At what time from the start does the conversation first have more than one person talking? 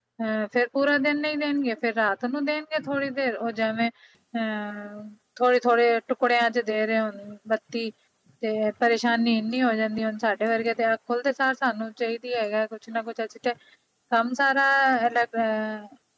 none

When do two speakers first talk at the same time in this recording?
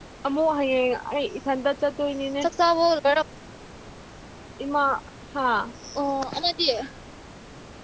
none

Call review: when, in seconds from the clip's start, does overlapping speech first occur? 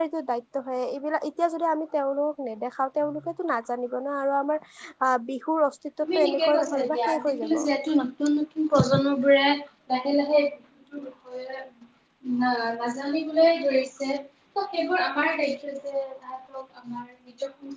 6.0 s

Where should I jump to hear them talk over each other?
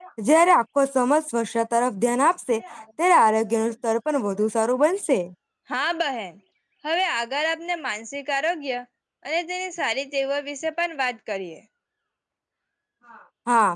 none

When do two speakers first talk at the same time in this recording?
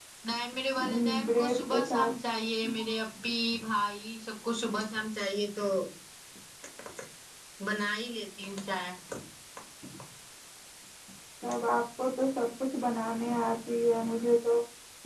0.8 s

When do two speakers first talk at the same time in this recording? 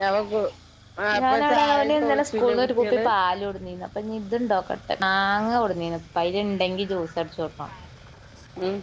1.2 s

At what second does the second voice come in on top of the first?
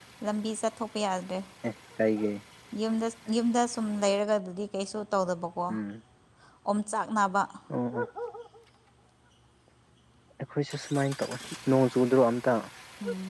none

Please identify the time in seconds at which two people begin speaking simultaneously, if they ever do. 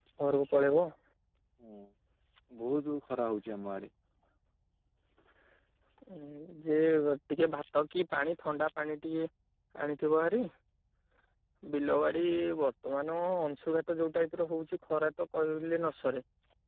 none

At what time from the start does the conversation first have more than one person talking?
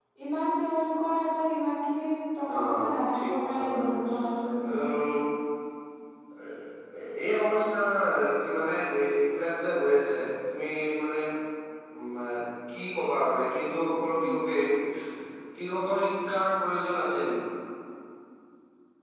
2.5 s

